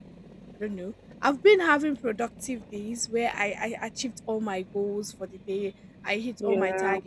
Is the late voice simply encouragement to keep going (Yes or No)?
Yes